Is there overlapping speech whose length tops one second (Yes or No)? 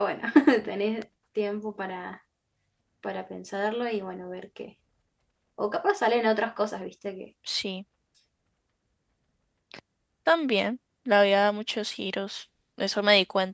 No